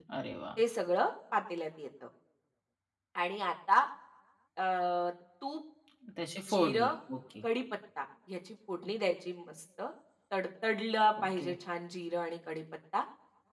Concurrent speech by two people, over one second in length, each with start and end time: none

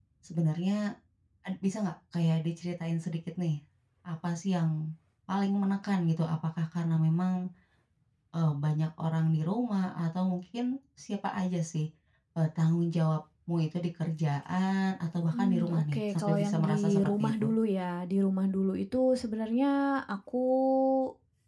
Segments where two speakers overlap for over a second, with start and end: 15.3-17.5

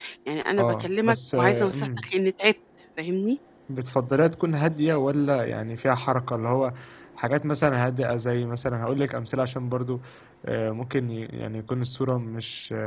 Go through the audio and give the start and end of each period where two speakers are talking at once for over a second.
0.6-2.0

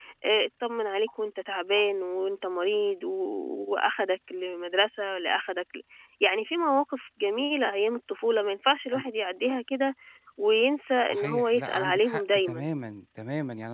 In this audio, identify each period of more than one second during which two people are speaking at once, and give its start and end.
11.1-12.7

